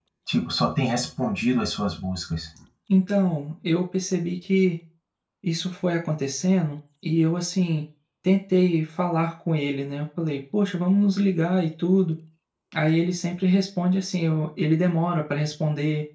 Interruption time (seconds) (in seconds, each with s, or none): none